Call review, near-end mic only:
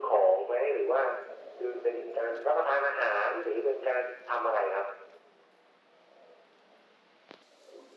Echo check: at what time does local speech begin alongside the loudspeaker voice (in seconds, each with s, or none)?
none